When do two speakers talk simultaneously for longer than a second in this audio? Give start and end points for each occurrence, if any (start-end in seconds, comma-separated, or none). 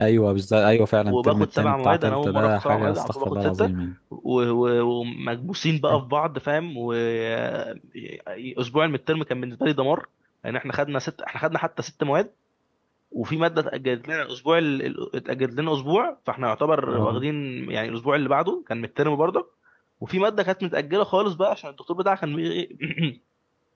1.1-3.7